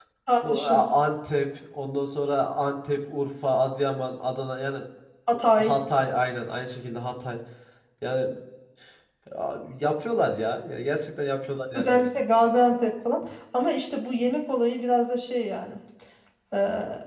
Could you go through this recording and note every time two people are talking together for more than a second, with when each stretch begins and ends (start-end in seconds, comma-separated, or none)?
none